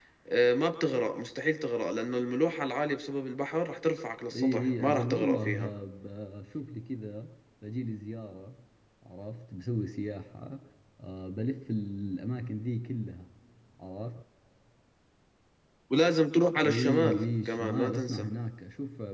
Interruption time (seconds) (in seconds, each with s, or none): 4.4 s